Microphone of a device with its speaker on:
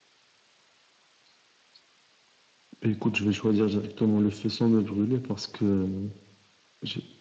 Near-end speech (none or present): none